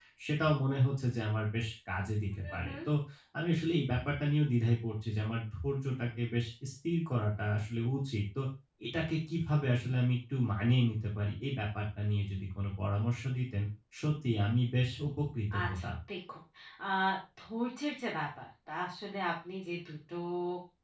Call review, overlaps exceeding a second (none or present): none